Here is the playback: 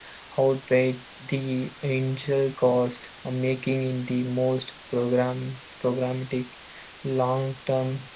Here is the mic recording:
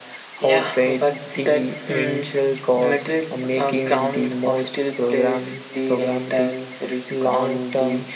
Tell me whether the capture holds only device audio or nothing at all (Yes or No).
No